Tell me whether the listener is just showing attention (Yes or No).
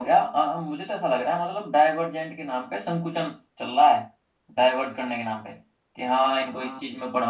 Yes